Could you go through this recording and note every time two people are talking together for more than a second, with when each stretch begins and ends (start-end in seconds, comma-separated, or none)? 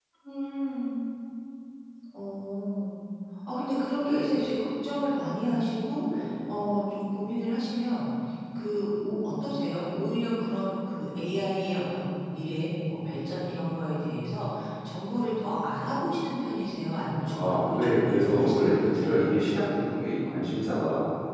17.3-19.2